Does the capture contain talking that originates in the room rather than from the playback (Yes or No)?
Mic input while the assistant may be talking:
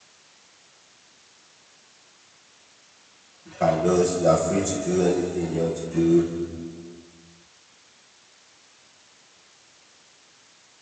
Yes